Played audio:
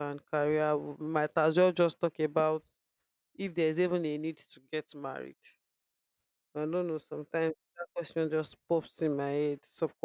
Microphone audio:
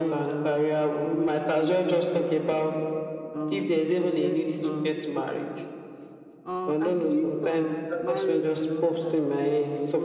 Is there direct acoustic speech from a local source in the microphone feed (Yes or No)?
Yes